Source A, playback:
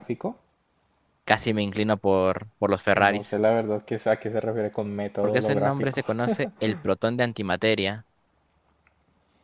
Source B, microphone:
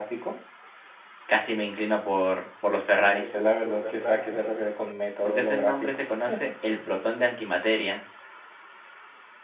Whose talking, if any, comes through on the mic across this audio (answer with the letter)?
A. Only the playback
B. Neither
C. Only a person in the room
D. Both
D